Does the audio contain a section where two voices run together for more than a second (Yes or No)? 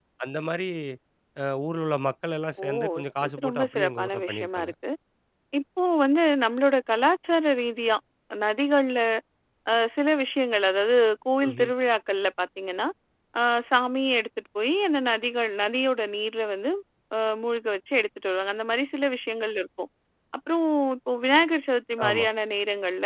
Yes